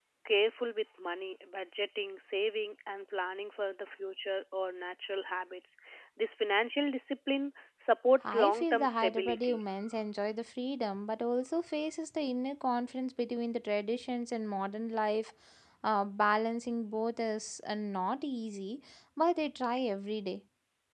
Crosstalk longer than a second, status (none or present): present